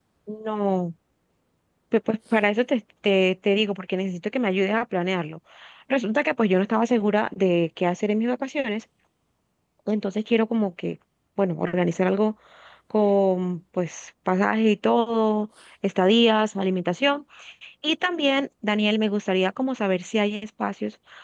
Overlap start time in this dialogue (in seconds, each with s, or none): none